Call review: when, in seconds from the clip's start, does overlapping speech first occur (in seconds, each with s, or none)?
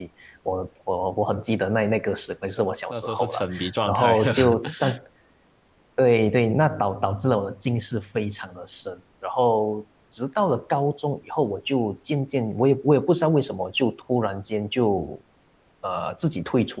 2.9 s